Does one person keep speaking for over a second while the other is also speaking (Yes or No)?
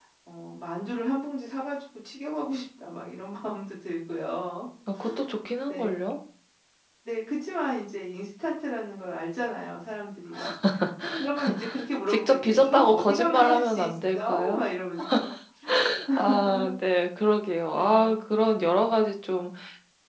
Yes